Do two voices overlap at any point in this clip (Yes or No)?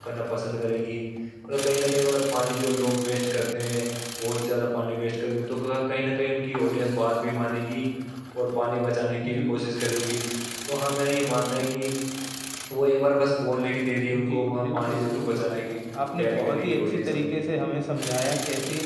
Yes